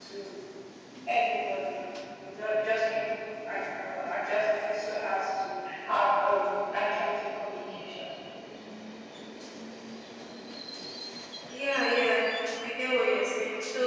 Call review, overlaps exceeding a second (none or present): none